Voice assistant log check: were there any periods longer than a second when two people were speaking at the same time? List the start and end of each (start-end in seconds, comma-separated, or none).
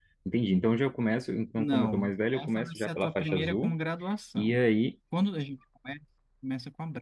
1.6-3.7